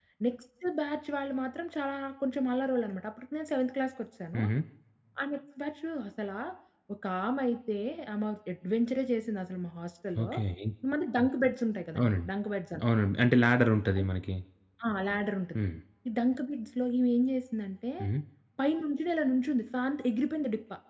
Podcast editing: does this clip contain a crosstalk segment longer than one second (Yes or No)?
No